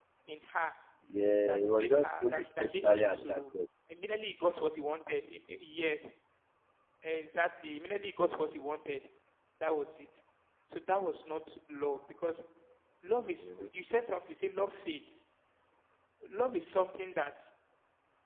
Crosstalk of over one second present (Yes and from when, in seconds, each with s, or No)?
Yes, from 1.5 s